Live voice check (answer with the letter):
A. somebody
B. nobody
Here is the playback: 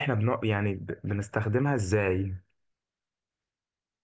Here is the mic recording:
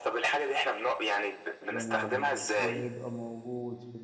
A